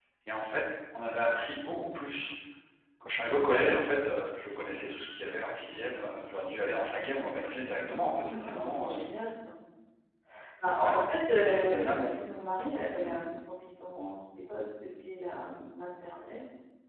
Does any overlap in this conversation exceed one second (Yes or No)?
Yes